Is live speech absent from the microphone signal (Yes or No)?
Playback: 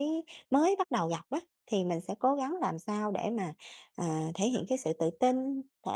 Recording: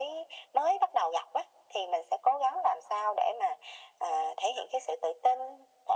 Yes